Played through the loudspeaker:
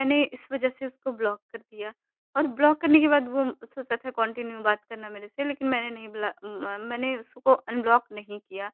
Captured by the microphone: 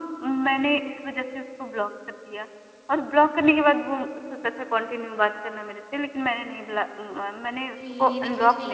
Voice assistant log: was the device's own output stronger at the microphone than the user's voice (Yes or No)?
Yes